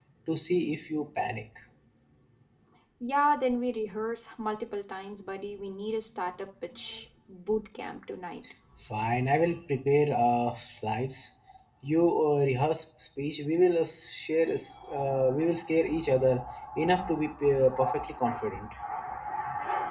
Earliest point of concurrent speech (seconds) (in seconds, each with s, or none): none